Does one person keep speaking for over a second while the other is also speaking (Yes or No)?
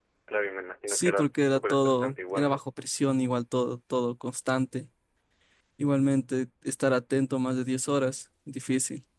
Yes